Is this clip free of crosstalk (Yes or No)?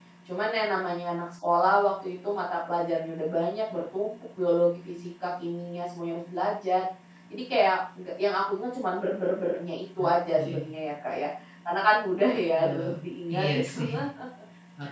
No